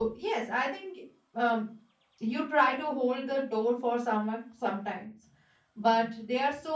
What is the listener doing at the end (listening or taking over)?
listening